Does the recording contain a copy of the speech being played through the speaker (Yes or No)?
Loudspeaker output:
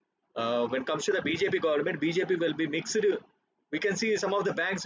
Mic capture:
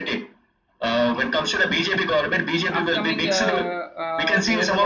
Yes